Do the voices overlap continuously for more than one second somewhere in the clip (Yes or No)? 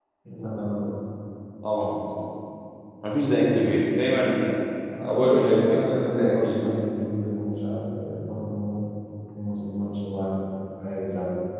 Yes